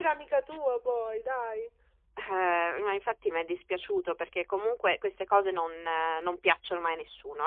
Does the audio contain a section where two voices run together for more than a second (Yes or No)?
No